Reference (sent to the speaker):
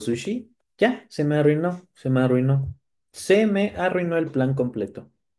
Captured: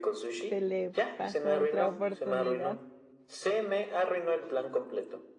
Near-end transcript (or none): se le pasó otra oportunidad.